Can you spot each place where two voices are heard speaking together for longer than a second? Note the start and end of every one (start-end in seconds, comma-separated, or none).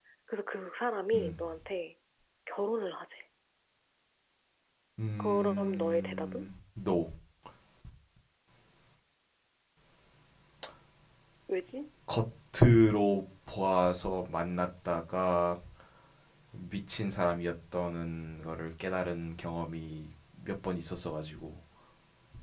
5.2-6.5